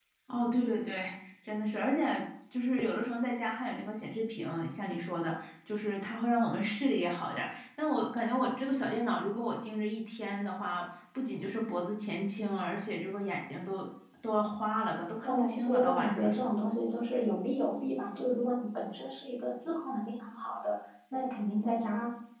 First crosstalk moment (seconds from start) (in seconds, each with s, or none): 15.2 s